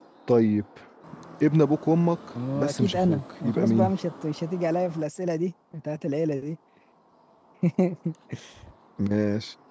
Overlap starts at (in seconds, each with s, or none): 2.4 s